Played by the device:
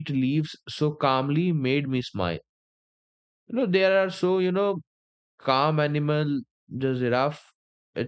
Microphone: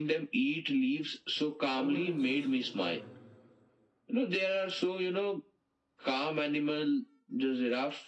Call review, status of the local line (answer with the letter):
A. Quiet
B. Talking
B